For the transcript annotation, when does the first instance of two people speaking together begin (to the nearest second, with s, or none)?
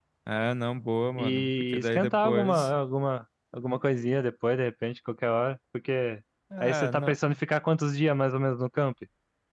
1 s